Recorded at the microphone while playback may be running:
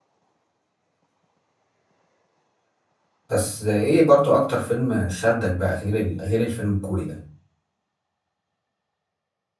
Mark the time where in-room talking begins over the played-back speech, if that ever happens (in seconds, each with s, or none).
3.3 s